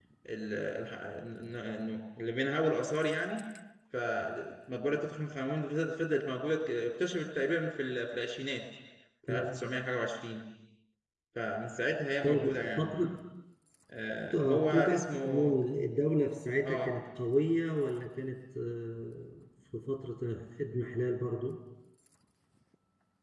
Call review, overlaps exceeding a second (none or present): present